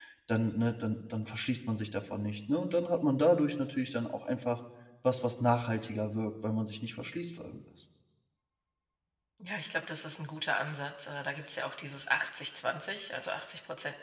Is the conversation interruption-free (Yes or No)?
Yes